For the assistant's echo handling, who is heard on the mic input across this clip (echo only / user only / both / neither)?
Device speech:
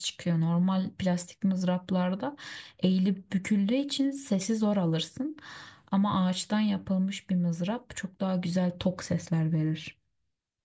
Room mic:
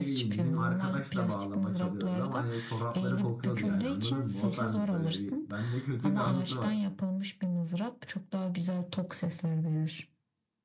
both